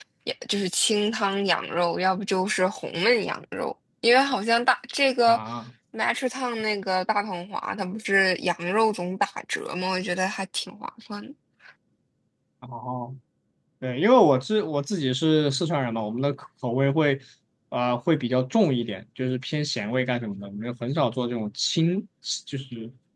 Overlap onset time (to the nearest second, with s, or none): none